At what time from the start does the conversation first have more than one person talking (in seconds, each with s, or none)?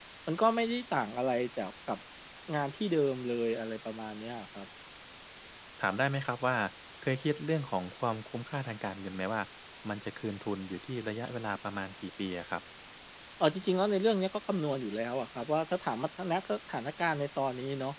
none